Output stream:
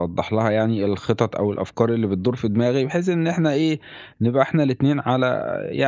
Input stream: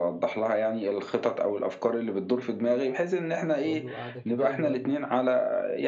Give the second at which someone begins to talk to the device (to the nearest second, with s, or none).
4 s